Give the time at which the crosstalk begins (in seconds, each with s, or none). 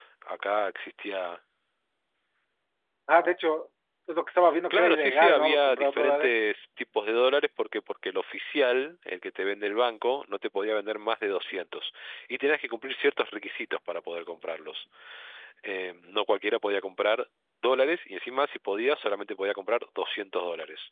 4.7 s